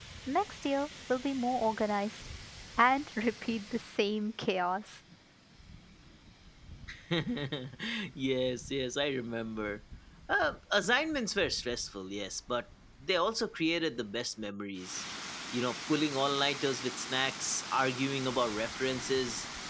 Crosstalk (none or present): none